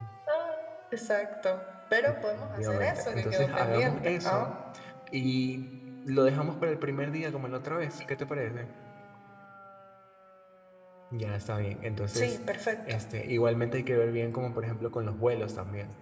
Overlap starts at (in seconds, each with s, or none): 2.4 s